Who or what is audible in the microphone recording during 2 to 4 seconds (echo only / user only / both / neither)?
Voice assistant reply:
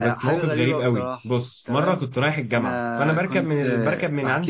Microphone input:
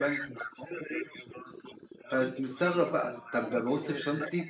both